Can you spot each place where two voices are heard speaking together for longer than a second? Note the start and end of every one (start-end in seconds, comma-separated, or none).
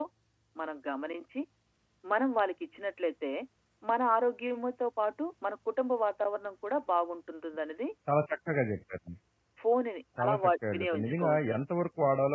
10.2-11.6